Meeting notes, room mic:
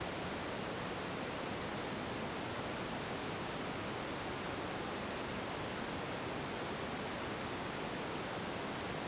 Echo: none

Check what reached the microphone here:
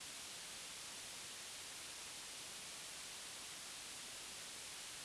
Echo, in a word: none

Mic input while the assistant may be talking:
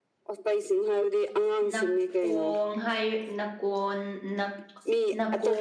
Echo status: present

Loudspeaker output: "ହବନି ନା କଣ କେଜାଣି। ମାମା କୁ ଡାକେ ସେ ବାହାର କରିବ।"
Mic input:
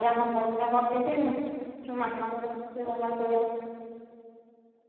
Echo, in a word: present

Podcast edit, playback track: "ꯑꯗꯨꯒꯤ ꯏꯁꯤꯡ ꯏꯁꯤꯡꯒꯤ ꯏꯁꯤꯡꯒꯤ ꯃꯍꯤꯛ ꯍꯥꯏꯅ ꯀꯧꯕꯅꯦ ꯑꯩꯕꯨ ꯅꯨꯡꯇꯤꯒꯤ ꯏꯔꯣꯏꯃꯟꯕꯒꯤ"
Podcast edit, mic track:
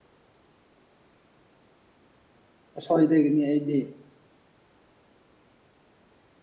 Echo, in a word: none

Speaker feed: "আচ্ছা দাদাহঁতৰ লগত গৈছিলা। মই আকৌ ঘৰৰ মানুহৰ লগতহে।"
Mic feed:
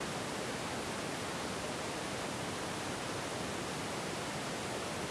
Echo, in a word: none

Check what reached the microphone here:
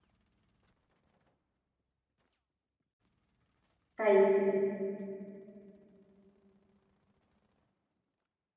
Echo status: none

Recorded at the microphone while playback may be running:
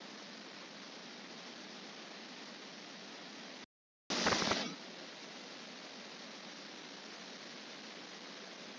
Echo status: none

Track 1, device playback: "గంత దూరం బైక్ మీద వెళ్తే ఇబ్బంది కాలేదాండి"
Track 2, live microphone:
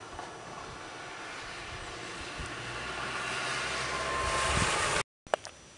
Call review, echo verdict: none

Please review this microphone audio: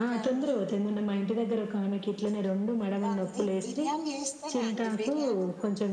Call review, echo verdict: present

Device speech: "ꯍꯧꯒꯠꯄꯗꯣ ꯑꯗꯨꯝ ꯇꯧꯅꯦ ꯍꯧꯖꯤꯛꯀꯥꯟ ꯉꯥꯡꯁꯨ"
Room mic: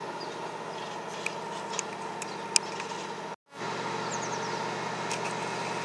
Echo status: none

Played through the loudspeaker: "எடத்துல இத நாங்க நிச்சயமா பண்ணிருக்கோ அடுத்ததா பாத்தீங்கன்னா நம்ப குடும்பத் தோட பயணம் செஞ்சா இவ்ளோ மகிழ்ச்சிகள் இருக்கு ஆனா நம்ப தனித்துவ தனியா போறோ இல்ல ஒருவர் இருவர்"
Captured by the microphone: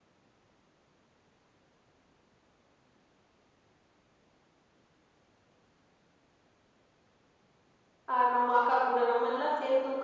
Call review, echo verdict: none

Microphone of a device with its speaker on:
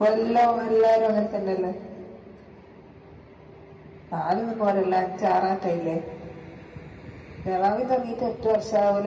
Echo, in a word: none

